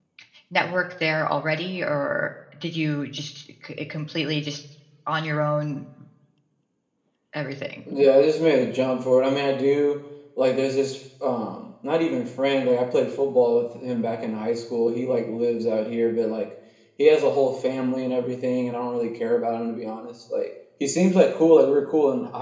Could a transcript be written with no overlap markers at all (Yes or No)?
Yes